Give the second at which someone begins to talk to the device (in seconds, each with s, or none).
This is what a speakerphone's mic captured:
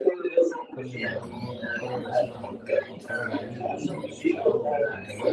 0.7 s